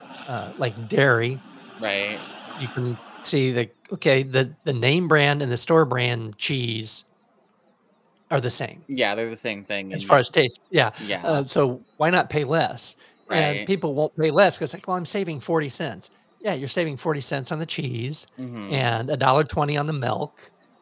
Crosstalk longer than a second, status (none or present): none